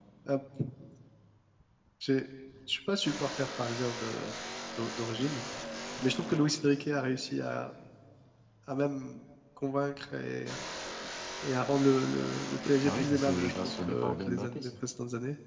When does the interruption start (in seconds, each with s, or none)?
12.8 s